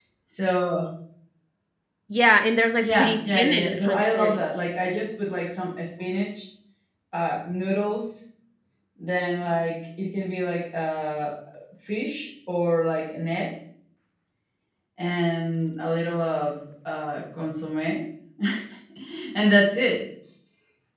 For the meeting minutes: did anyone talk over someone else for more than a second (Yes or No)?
Yes